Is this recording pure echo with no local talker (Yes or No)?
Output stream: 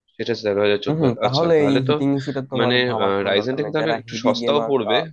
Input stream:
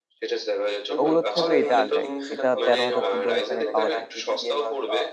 No